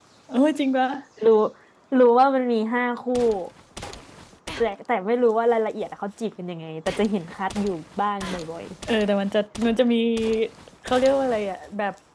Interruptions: none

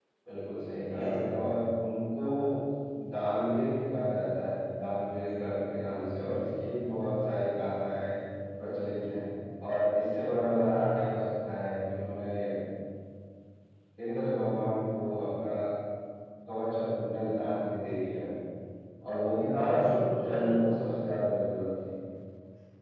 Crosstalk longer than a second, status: none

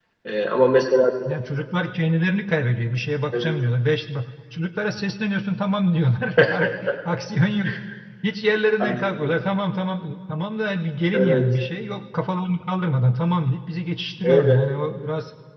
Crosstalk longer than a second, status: none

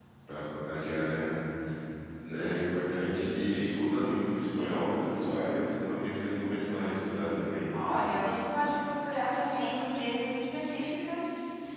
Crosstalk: none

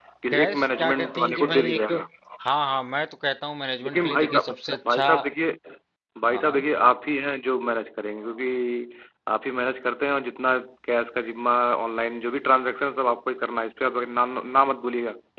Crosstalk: present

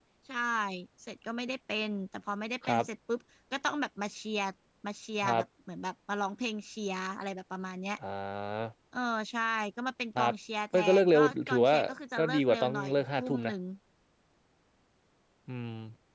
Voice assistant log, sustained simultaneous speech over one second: present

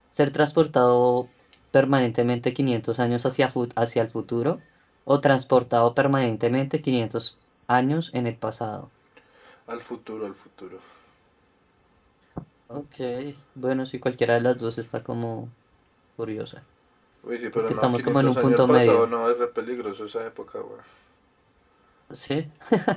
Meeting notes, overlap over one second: present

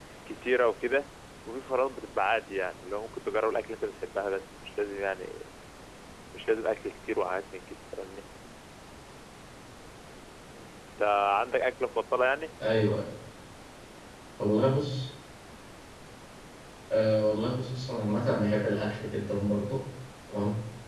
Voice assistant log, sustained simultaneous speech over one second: none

